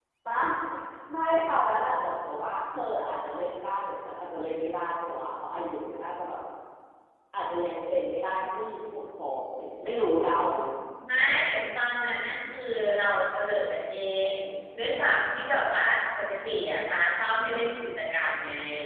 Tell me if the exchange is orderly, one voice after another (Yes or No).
Yes